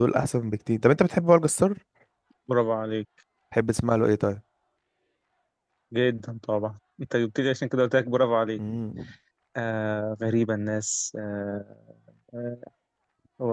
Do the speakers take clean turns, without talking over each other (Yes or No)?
Yes